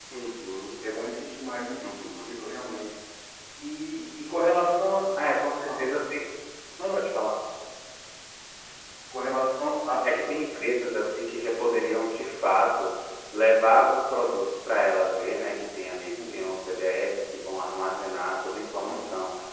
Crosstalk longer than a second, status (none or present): none